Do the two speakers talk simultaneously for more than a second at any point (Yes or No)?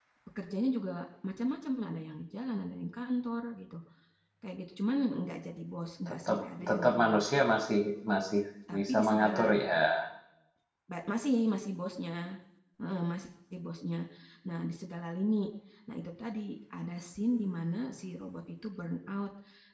Yes